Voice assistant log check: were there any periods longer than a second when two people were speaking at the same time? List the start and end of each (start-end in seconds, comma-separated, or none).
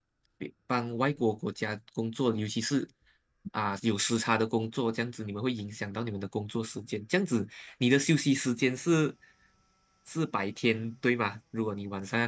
none